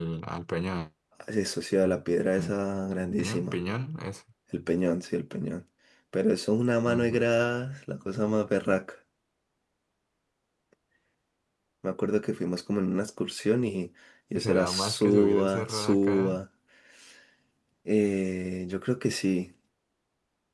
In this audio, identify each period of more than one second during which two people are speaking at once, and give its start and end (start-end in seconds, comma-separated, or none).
14.4-16.4